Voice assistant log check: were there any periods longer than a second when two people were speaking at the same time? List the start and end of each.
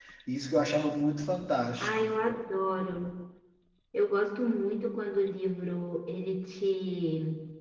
none

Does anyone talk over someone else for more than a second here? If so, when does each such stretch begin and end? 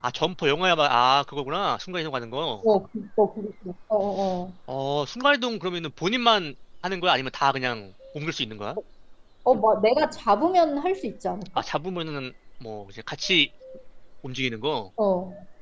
none

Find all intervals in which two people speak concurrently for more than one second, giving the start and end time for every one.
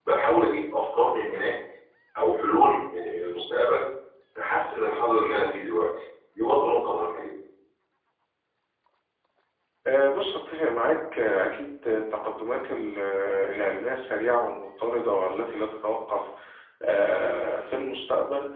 none

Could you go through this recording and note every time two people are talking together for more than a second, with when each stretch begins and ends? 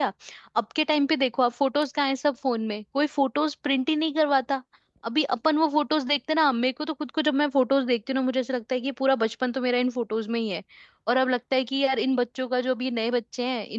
none

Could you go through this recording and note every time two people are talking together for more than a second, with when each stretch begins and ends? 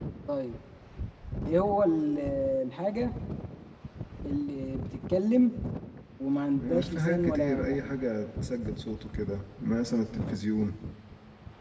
6.5-7.8

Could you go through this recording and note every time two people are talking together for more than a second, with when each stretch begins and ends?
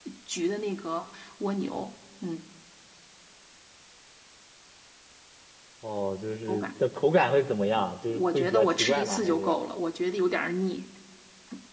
7.8-9.6

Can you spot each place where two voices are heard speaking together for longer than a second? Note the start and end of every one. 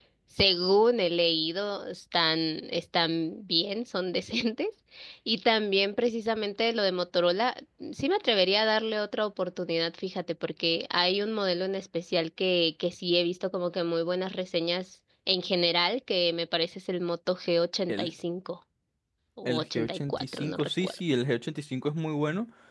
19.4-21.0

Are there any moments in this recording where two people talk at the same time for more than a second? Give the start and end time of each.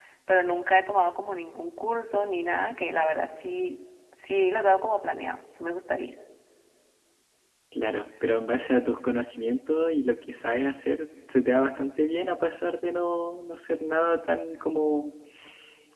none

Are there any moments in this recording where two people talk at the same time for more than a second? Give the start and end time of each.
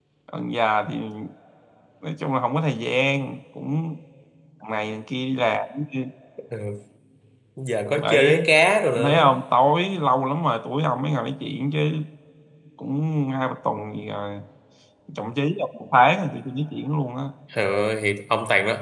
none

